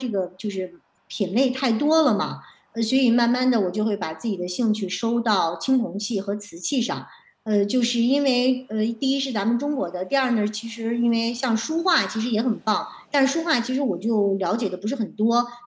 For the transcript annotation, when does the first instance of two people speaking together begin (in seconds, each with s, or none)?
none